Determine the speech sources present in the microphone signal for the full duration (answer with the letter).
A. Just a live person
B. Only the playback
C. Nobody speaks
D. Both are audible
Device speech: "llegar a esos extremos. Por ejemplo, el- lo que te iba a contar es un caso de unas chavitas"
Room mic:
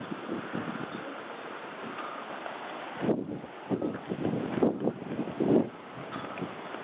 C